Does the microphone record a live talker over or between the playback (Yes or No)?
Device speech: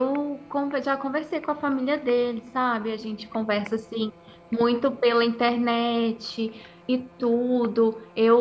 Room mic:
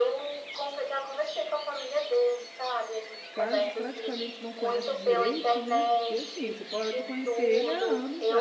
Yes